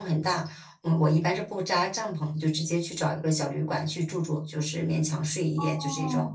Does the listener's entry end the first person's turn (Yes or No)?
Yes